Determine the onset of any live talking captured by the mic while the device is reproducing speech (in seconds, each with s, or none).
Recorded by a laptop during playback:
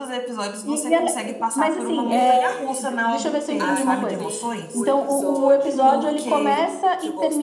2.1 s